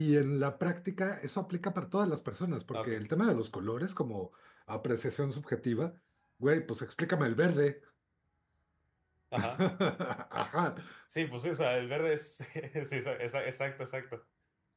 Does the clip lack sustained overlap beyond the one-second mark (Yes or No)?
Yes